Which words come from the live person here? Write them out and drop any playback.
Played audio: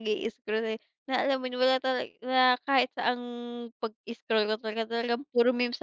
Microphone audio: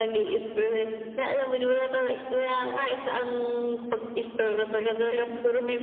Oo.

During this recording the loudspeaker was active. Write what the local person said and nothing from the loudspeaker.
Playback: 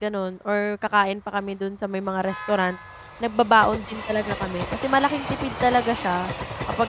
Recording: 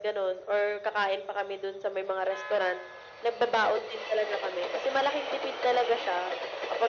none

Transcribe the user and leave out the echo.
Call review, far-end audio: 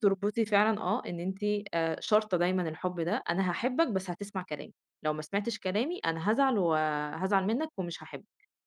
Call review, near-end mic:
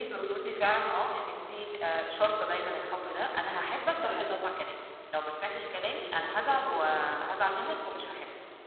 صح طبعًا.

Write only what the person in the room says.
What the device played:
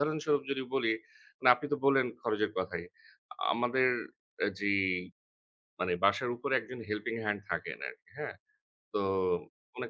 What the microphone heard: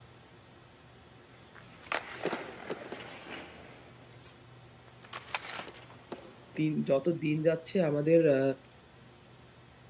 দিন যত দিন যাচ্ছে আমাদের আ

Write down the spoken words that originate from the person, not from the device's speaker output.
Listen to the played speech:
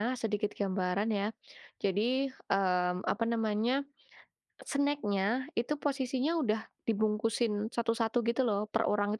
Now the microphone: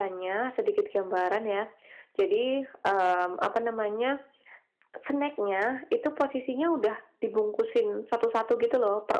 none

